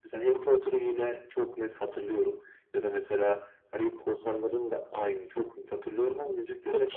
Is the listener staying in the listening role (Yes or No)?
No